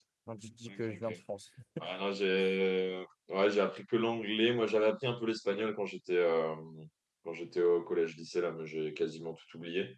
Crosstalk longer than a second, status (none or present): none